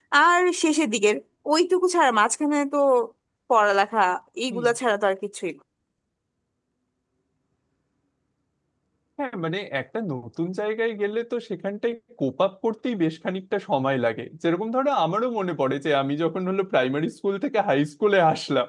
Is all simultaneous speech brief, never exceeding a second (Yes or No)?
Yes